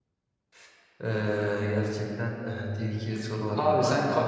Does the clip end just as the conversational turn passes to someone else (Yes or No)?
Yes